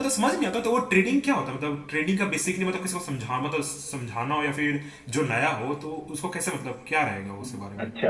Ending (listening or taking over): taking over